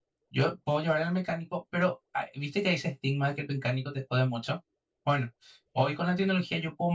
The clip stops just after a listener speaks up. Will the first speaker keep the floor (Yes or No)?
Yes